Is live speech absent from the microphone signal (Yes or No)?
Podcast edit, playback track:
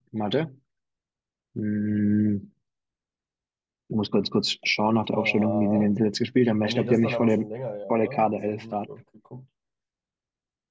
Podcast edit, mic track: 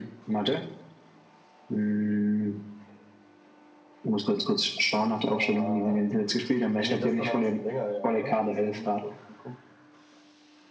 Yes